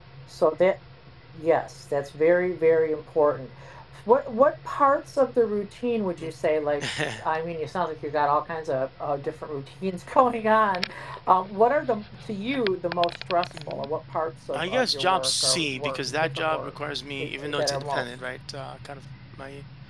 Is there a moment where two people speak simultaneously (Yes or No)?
Yes